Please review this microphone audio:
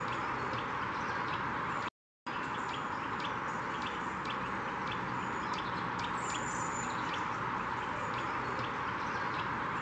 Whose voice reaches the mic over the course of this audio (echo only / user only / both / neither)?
neither